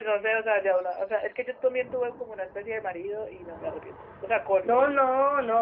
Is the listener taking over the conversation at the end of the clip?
Yes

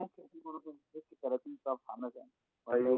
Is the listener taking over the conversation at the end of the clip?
Yes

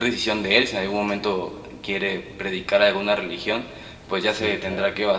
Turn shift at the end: No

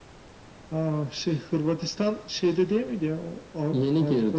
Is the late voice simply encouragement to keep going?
No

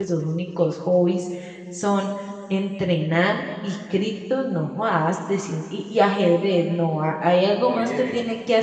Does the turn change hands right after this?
No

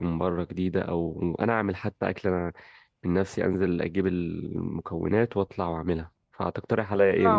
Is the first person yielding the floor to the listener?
Yes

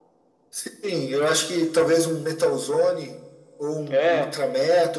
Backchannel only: Yes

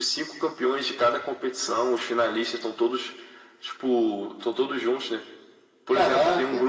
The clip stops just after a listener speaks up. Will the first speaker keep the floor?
Yes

